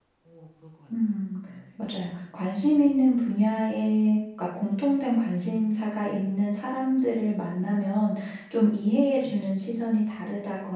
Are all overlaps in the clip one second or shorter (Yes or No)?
Yes